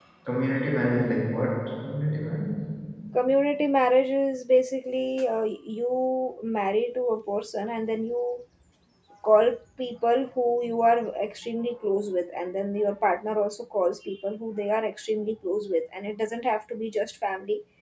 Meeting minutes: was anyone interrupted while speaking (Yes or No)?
No